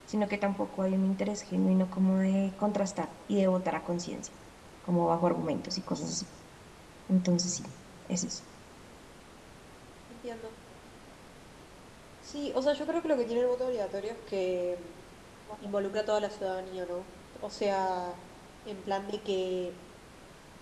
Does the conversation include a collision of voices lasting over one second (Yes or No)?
No